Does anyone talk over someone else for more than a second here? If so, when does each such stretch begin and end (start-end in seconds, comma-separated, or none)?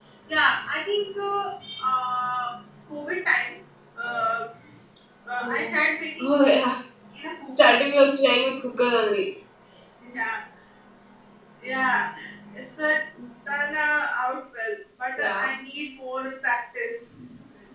none